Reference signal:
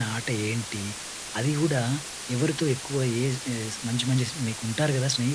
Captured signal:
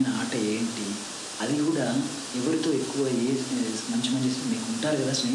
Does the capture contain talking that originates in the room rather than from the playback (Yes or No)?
No